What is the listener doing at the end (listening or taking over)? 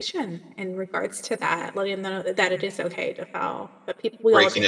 taking over